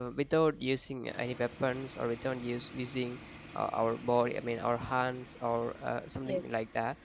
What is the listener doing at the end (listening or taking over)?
listening